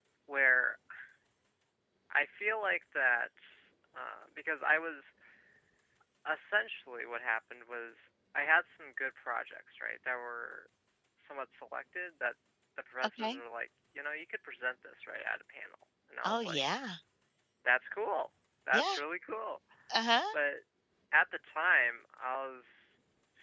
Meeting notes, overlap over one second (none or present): none